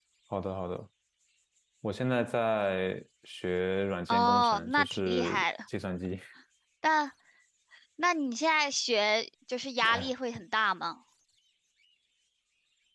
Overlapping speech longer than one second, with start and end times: 4.1-5.4

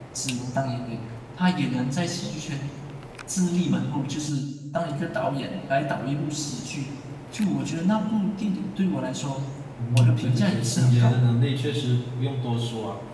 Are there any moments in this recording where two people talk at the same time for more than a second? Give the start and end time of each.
9.9-11.3

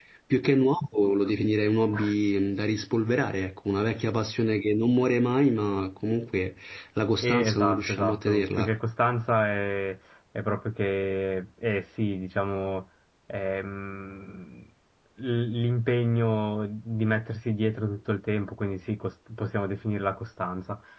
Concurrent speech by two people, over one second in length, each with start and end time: 7.2-8.7

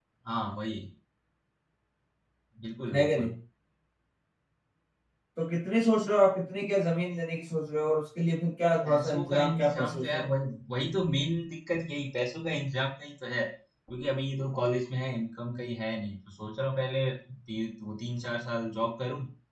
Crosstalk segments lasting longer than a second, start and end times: 8.8-10.3

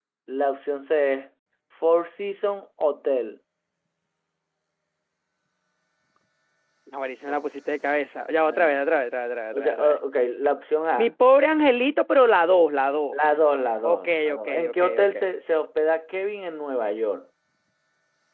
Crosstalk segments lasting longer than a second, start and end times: 13.8-15.2

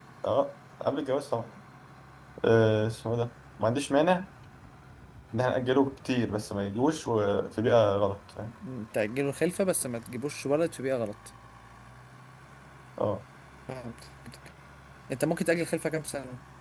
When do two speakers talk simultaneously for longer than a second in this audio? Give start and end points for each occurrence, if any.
none

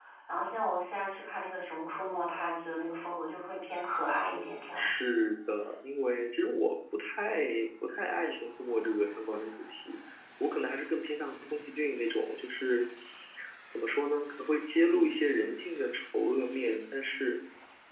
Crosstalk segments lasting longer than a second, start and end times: none

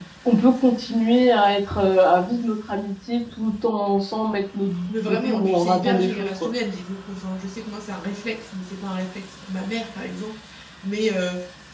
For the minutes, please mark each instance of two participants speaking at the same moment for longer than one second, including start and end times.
4.9-6.5

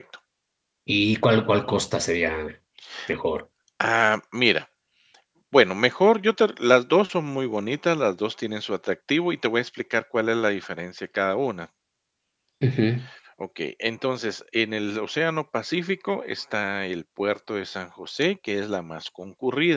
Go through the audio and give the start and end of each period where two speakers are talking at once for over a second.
none

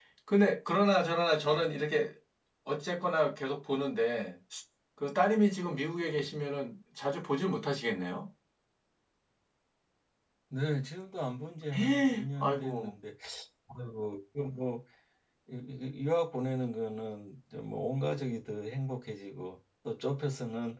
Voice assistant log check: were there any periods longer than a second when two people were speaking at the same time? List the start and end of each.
11.7-12.9

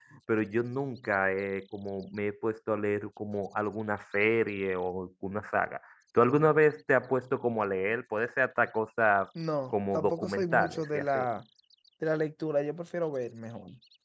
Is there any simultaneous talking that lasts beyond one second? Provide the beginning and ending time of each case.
9.7-11.2

